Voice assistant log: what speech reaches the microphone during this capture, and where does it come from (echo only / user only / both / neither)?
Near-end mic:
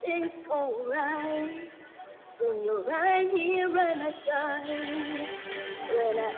echo only